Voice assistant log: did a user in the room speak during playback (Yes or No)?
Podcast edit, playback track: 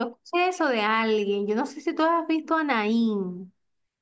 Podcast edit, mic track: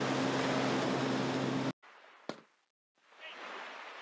No